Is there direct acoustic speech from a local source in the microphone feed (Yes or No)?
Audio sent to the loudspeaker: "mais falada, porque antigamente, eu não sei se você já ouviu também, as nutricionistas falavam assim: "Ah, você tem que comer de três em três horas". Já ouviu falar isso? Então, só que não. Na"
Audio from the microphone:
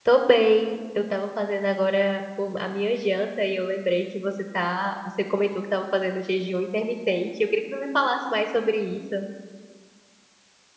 Yes